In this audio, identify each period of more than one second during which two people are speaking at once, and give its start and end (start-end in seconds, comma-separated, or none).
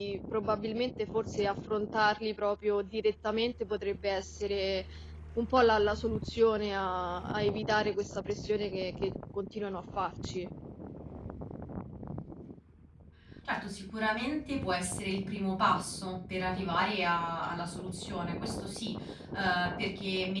none